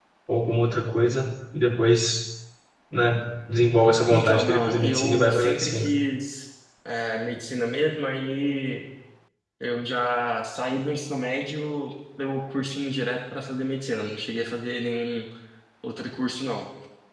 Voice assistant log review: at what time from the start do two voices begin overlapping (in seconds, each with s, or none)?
4.1 s